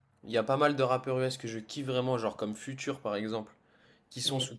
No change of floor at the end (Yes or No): Yes